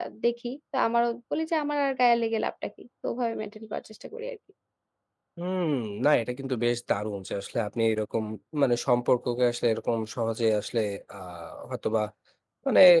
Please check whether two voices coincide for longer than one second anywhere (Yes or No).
No